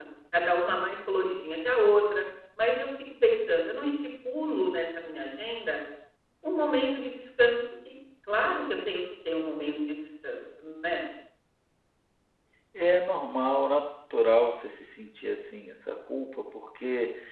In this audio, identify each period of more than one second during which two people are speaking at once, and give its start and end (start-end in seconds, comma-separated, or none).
none